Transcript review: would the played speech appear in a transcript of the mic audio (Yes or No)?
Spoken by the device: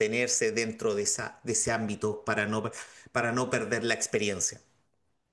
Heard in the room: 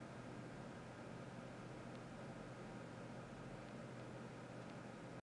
No